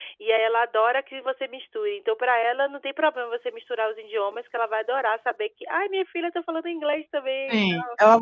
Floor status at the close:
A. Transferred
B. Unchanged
A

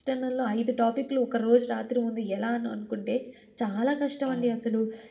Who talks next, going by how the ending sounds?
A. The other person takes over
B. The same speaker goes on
B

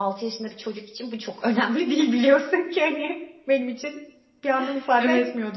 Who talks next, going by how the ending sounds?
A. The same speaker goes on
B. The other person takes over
B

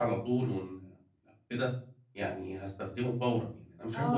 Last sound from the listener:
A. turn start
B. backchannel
A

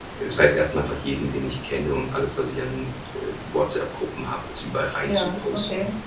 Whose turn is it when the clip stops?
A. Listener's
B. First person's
B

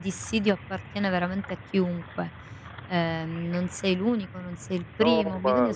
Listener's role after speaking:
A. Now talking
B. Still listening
A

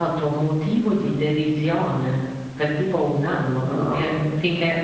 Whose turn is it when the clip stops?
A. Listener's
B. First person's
B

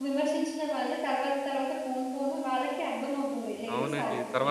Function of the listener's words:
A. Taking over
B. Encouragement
A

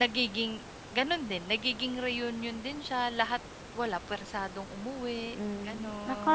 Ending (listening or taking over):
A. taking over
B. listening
A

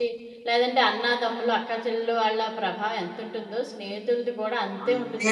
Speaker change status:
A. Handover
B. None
A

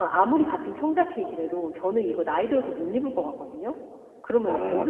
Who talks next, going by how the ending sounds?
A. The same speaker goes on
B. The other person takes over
B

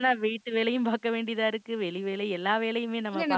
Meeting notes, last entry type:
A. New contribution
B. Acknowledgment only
A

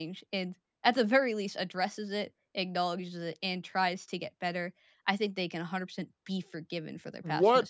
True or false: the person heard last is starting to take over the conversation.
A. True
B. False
A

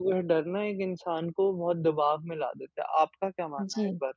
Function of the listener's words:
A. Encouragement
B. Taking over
B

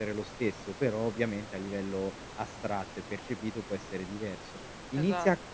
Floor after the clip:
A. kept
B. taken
A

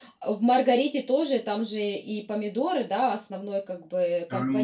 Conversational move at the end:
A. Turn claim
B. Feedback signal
A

